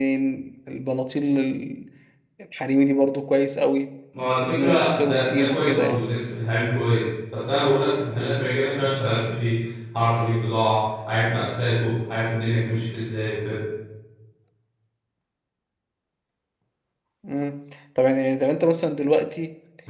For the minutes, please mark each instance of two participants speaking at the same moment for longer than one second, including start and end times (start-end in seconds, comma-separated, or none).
4.4-6.0